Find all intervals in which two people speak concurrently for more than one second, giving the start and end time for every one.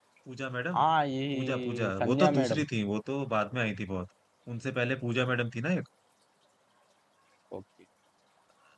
1.3-2.6

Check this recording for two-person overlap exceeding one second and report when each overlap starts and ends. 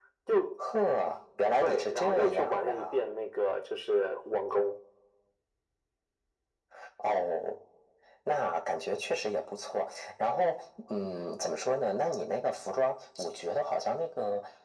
1.6-3.0

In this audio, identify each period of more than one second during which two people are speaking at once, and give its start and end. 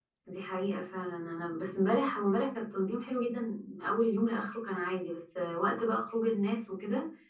none

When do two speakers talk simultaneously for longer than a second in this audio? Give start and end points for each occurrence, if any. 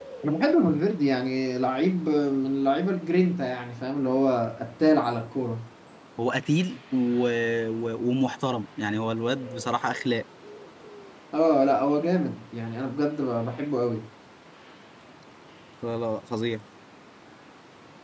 none

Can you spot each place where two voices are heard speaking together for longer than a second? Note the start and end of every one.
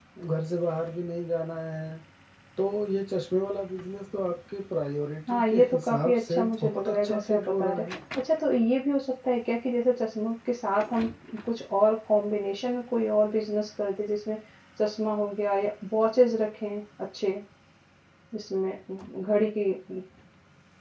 5.3-7.8

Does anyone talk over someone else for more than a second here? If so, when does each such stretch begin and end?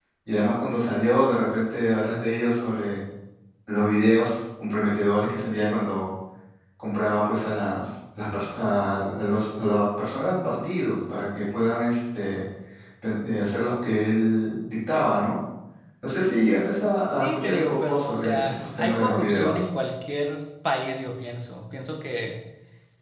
17.2-19.6

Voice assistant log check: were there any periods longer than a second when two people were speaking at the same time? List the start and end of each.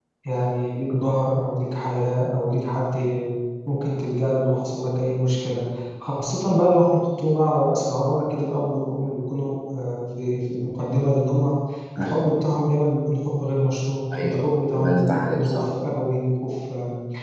14.1-15.6

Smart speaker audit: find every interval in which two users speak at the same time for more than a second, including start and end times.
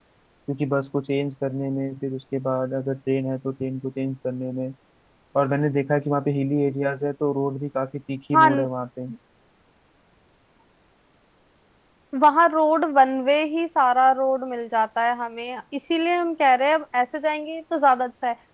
none

